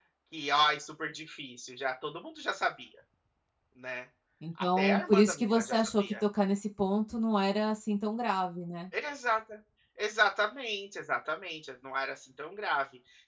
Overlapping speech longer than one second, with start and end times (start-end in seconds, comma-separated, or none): 4.6-6.1